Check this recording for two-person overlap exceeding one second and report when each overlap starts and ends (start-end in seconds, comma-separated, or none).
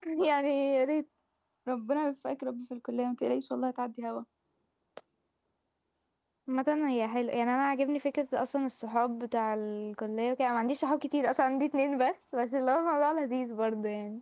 none